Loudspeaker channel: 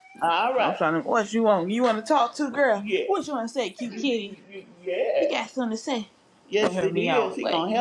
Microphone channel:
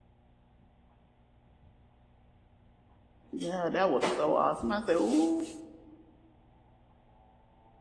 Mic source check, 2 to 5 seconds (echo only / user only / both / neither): user only